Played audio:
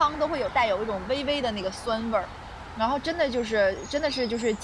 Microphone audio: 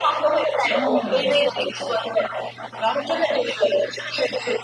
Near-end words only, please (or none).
嗯，